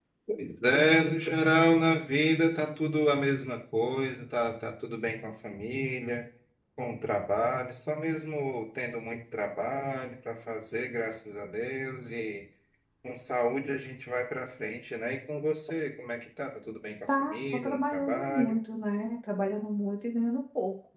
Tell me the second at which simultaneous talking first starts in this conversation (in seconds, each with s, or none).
17.1 s